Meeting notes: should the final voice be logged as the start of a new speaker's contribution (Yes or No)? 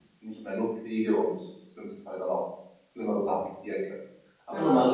No